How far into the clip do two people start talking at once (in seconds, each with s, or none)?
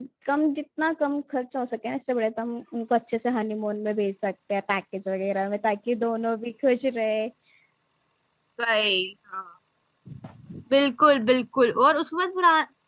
none